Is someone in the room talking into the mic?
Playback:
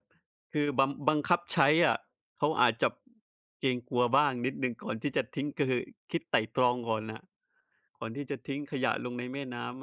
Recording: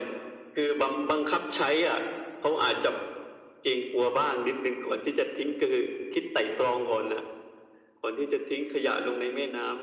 No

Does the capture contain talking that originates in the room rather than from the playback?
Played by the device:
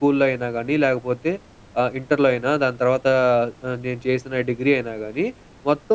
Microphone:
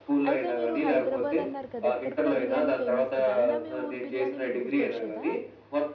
Yes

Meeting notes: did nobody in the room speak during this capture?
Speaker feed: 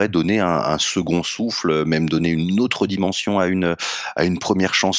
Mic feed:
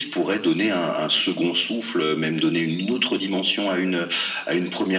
Yes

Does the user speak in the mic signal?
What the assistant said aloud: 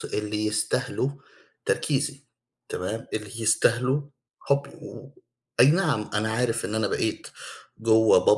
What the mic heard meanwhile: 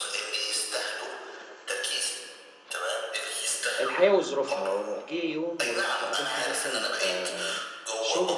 Yes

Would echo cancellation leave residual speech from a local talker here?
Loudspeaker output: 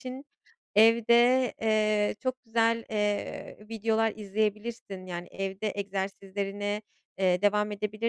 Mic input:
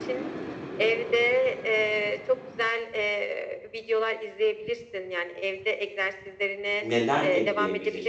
Yes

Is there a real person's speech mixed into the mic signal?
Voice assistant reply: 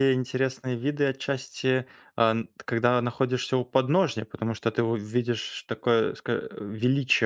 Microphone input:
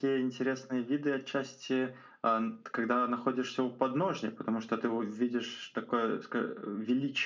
No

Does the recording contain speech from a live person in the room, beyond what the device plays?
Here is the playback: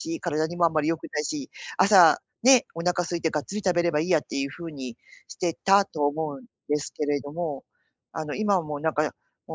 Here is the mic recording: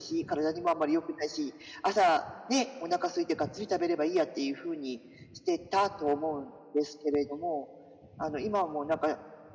No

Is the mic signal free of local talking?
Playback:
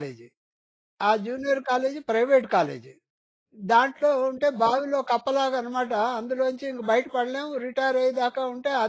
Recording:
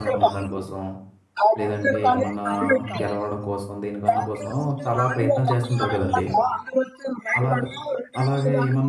No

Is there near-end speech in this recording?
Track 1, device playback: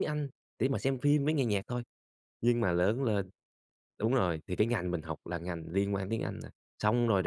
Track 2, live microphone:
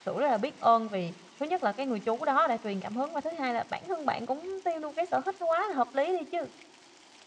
Yes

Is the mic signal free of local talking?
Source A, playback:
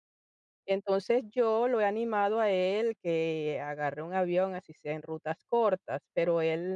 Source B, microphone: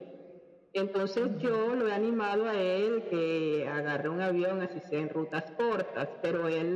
No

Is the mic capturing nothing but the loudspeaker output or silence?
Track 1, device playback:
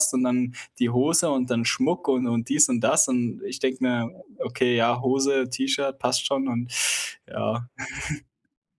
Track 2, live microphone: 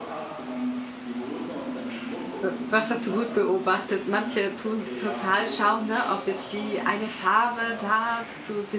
No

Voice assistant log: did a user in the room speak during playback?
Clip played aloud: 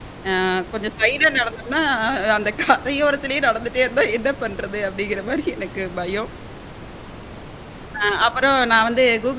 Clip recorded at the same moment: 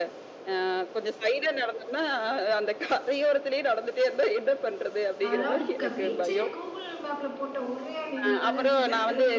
Yes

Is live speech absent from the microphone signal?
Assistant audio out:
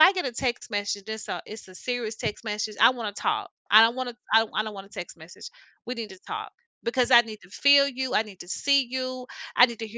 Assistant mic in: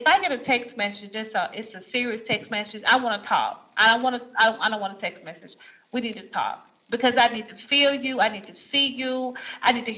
Yes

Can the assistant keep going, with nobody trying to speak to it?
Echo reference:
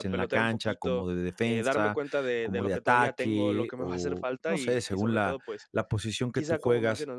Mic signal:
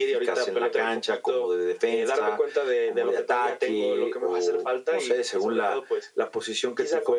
Yes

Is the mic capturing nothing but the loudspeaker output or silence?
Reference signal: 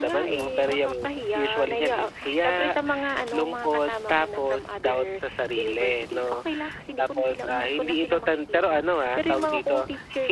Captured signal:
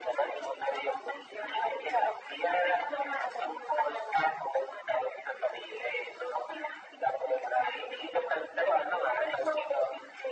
Yes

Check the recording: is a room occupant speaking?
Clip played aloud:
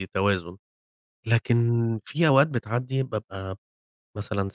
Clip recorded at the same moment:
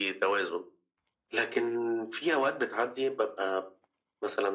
No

